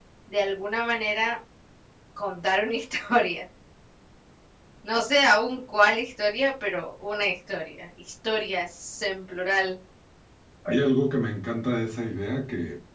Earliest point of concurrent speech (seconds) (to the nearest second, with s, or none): none